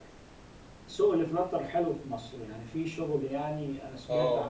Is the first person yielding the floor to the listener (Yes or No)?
Yes